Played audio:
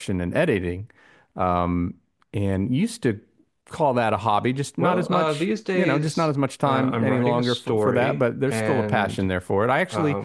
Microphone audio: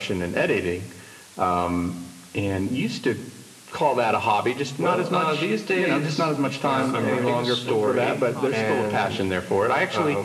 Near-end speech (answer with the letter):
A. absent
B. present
B